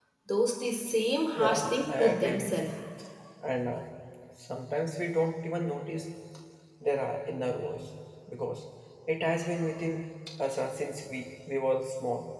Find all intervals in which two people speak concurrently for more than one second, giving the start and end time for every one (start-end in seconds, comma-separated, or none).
1.4-2.7